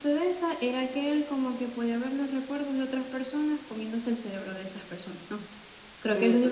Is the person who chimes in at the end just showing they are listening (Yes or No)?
Yes